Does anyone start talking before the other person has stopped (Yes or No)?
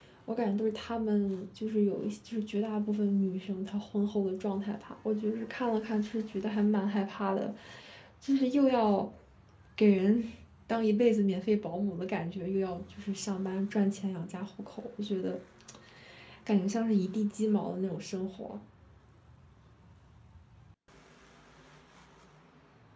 No